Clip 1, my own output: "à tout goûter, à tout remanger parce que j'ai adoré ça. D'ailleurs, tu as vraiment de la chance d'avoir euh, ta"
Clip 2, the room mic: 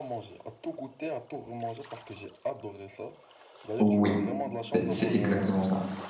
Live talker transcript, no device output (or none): oui, c'est c'est exactement ça.